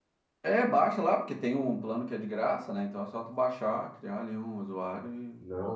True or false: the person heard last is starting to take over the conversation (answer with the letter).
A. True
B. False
A